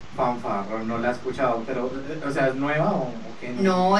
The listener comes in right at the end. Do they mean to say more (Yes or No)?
Yes